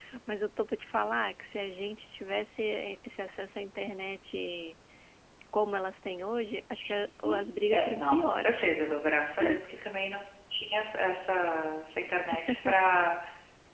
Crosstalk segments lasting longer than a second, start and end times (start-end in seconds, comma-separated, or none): 7.2-8.7